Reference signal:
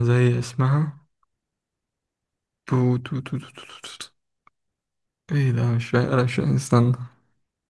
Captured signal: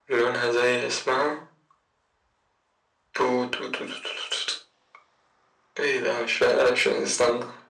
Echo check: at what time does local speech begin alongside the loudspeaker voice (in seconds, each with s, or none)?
none